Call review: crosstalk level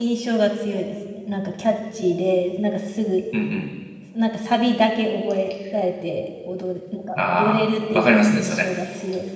present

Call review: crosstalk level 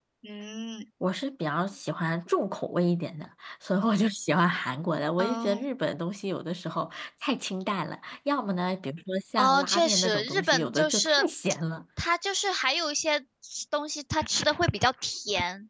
present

